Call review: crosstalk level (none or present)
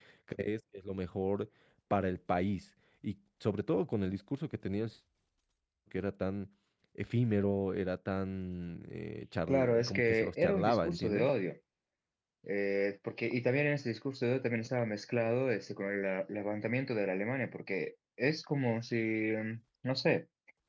present